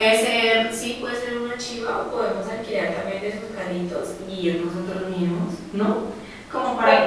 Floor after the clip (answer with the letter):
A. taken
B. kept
A